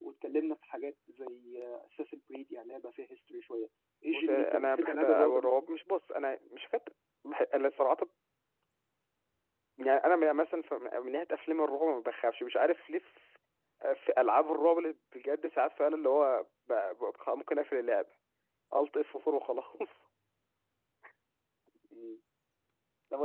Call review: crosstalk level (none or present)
present